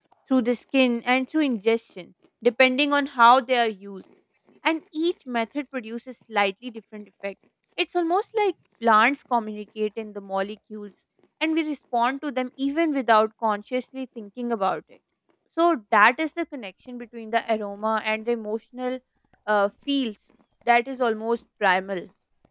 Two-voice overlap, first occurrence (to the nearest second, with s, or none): none